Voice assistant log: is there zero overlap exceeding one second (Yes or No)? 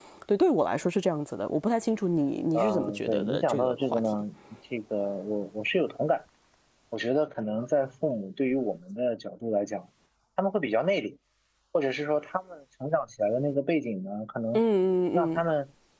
No